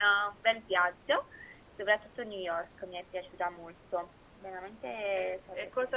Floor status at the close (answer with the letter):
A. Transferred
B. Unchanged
A